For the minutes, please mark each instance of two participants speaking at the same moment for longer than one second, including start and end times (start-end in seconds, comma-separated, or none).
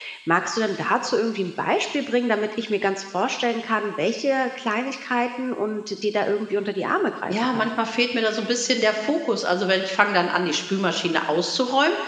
none